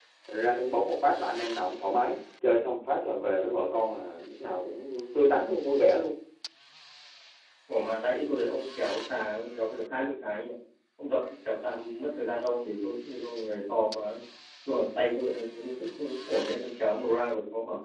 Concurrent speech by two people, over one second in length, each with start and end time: none

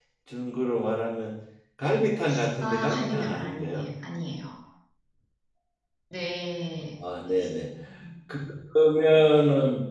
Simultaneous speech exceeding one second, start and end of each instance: 2.6-3.9

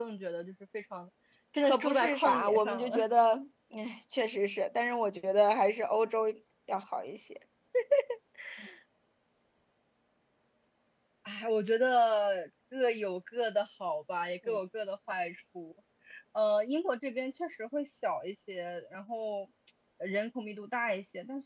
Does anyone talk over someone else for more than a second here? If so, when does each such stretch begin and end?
1.6-3.0

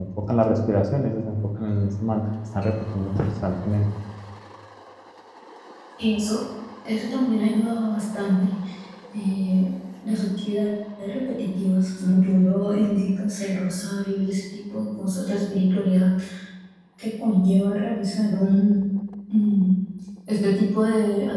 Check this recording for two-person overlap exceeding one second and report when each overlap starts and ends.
none

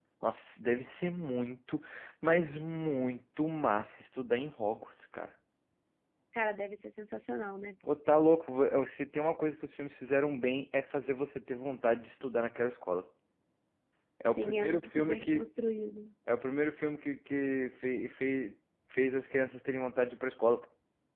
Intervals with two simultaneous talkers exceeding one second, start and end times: 14.2-15.5

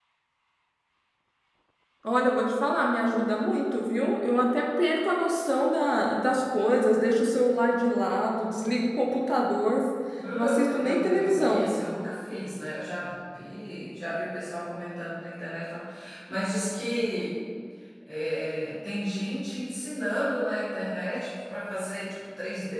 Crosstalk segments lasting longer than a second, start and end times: 10.3-11.7

